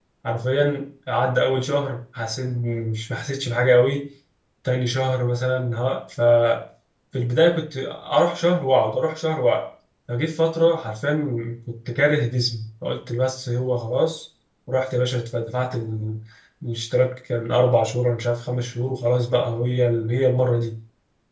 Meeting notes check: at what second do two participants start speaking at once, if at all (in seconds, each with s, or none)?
none